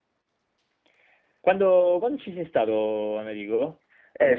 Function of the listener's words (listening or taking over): taking over